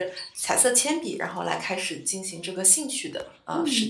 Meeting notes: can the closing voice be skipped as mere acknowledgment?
No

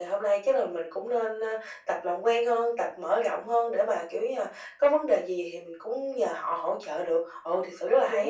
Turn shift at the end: Yes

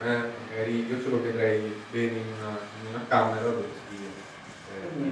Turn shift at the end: No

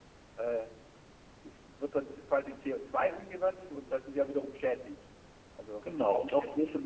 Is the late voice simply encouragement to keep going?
No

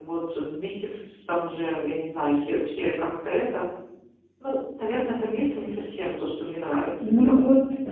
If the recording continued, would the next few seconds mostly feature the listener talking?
Yes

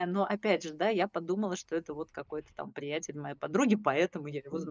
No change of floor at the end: No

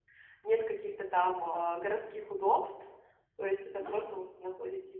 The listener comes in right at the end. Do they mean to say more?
No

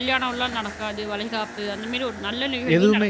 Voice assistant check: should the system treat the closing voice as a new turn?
Yes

